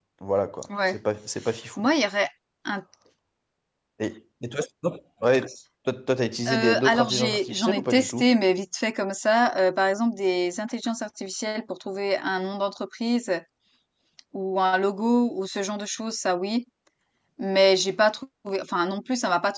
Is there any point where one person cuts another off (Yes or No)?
Yes